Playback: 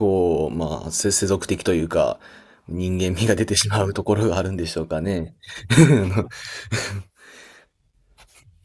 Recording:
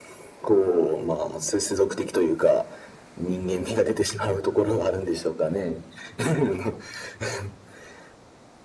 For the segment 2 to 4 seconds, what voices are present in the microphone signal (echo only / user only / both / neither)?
echo only